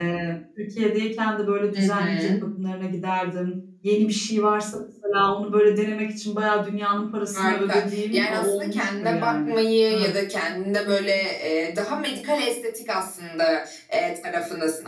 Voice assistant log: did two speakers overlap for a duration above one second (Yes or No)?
Yes